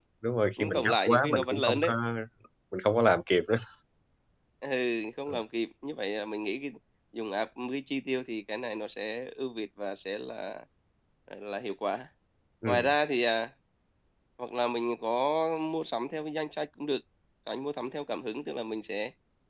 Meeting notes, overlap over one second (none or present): present